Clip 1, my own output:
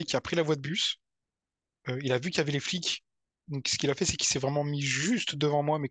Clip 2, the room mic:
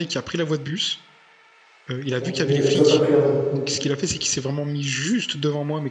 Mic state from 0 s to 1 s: echo only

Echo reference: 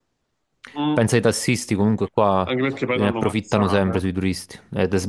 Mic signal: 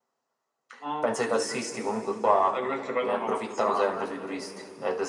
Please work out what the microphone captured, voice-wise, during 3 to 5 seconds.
echo only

